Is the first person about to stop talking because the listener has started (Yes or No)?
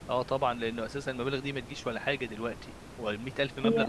No